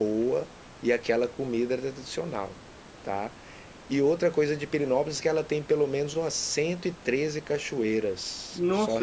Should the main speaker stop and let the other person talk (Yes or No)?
No